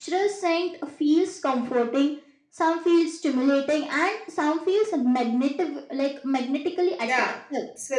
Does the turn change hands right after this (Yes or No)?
Yes